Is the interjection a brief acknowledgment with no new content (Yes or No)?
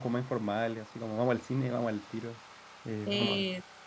Yes